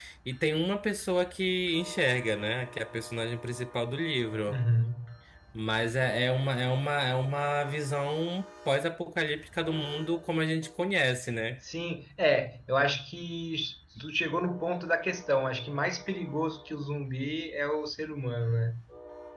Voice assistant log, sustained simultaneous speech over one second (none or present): none